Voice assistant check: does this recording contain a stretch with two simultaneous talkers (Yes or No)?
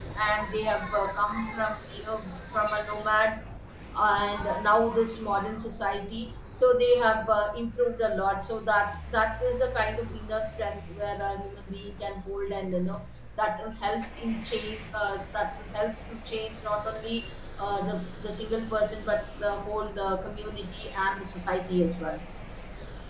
No